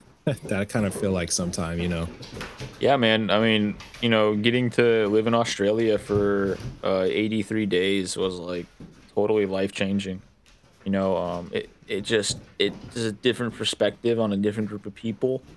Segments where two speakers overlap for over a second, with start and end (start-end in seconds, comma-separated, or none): none